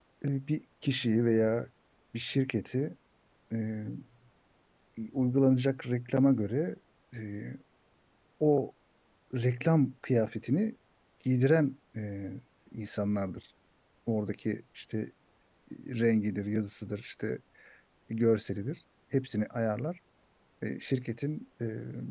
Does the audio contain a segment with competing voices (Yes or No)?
No